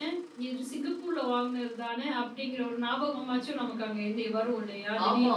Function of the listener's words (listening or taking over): taking over